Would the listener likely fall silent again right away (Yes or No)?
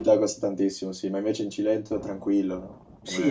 No